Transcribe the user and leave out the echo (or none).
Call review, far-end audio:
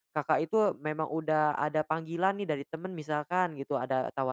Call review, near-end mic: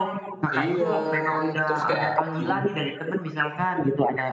Iya. Terus kayak mhm.